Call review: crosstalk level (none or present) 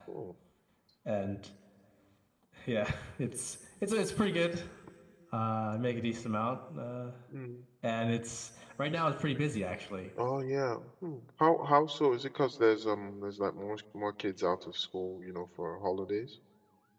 none